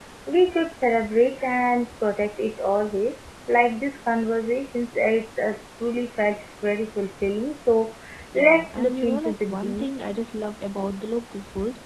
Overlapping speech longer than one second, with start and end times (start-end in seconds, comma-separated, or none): 8.3-9.8